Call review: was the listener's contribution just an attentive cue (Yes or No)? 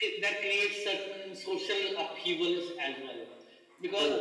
Yes